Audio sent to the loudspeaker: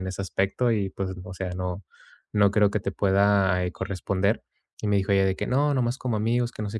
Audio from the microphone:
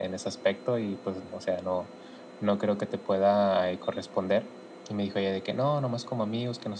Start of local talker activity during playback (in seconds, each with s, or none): none